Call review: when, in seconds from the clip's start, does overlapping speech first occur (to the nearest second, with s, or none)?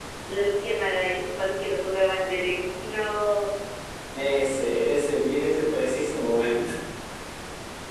none